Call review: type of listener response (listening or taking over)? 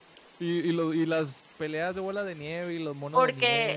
taking over